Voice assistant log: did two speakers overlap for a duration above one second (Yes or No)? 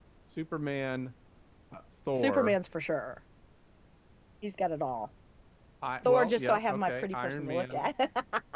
Yes